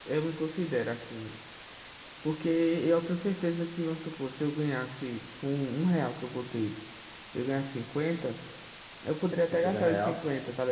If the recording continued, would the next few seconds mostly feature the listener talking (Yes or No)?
No